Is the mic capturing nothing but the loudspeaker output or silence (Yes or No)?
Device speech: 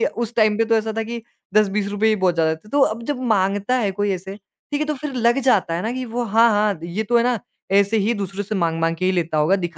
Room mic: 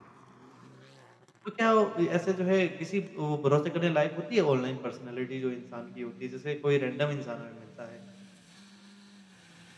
No